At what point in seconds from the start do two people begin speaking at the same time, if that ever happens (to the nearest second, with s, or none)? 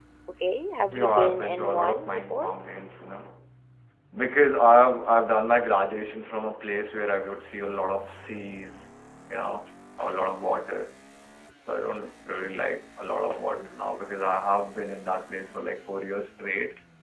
1 s